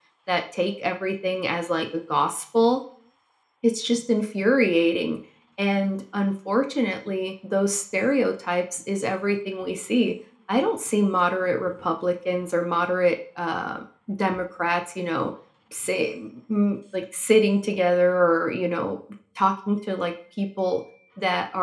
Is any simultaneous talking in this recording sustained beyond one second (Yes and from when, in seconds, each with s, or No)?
No